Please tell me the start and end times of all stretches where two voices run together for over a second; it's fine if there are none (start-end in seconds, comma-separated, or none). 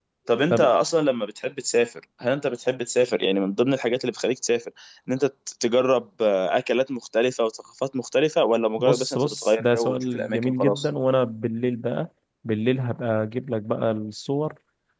8.8-10.9